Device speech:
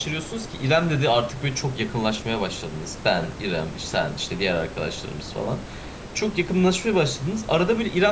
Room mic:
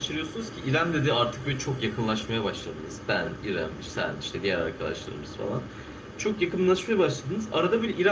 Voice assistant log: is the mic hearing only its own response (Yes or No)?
Yes